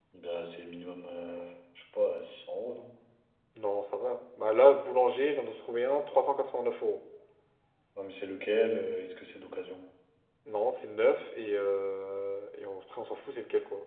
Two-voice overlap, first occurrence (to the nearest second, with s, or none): none